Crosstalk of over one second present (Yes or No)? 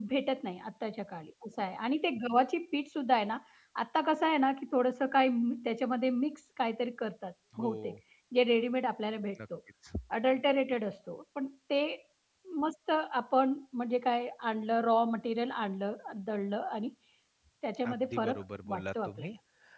Yes